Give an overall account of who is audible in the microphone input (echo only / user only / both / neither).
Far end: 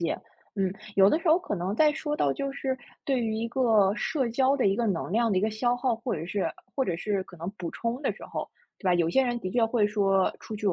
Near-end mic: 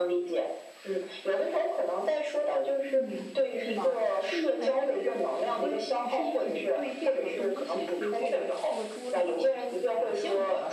both